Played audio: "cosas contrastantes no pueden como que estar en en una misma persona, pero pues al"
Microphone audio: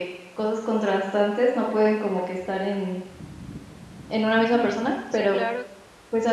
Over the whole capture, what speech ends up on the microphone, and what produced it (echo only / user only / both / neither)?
both